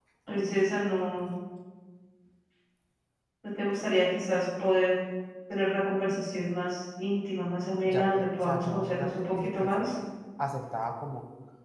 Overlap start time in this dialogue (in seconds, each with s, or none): 7.9 s